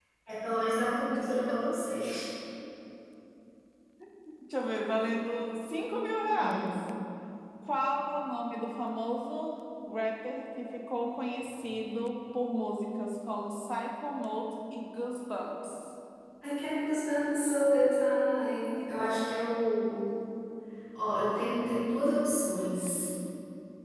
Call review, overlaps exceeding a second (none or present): none